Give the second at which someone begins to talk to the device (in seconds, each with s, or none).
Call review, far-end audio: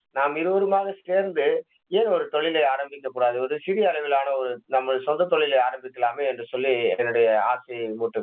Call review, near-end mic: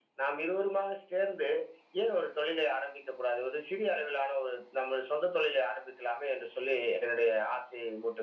none